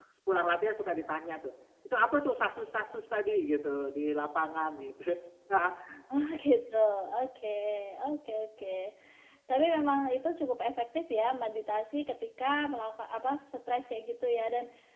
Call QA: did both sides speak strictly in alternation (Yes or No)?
Yes